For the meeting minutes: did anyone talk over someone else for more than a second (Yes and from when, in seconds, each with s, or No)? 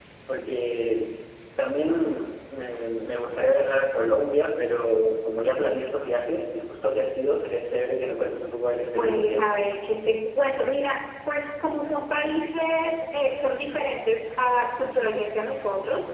No